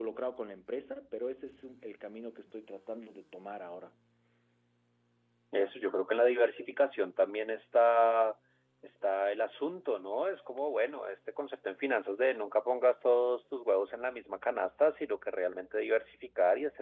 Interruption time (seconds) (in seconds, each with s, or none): none